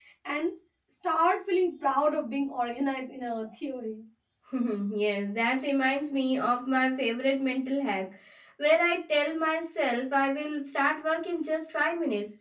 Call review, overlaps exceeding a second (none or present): none